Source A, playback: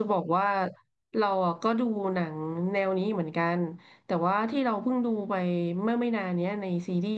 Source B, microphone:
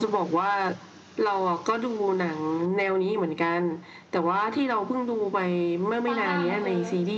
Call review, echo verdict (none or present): present